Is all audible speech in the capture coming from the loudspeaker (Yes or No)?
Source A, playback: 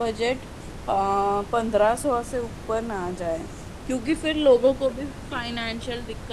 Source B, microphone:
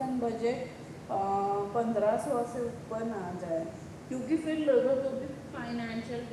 Yes